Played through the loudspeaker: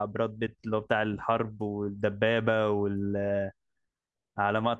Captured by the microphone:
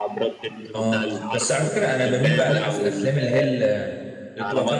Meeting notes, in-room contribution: present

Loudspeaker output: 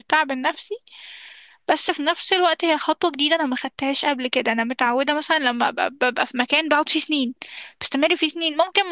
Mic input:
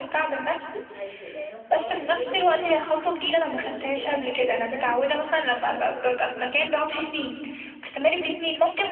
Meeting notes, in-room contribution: present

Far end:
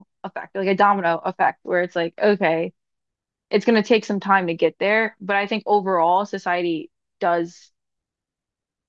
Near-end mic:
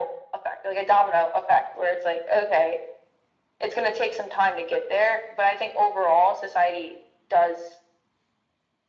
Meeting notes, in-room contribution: none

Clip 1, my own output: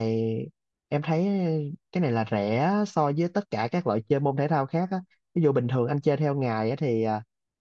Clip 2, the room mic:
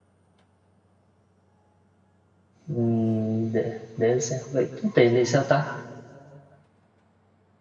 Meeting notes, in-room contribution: present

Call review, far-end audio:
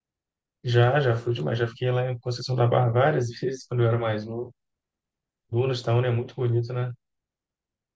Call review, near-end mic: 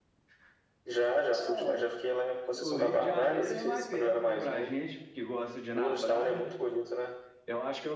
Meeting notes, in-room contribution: present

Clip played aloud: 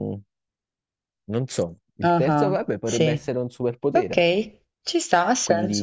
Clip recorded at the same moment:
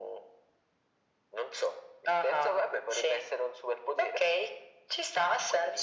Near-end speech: none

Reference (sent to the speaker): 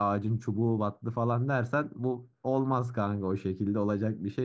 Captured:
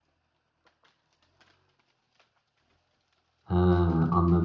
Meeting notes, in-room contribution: present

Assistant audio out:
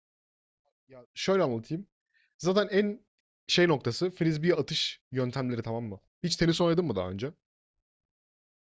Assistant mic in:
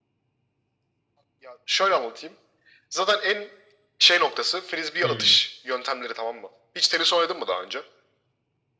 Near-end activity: present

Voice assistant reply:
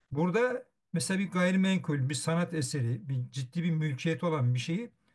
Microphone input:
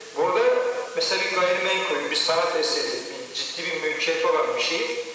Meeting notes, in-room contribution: none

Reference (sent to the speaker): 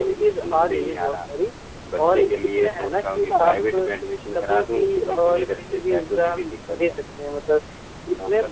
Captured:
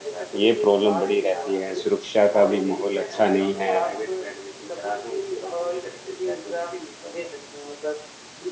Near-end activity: present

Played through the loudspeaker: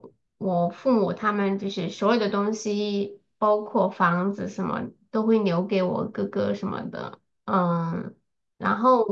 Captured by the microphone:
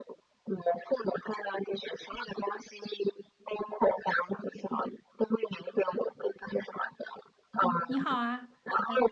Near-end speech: present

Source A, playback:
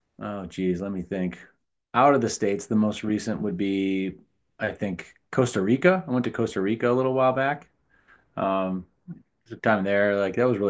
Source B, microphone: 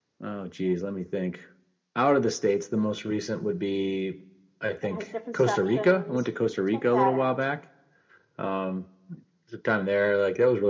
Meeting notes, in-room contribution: present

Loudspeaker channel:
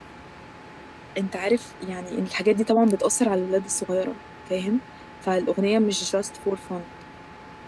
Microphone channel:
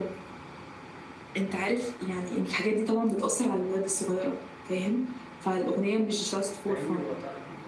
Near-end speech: present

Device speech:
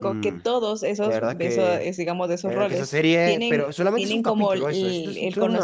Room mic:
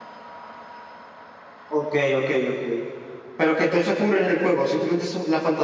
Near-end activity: present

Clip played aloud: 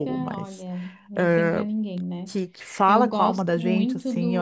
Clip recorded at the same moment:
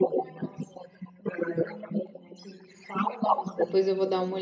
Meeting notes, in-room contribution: present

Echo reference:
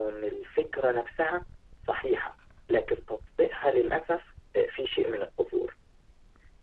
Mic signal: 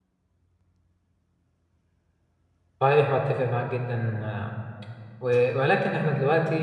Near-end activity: present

